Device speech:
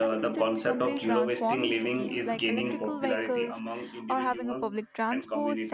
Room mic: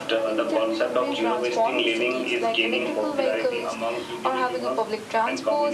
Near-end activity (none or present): none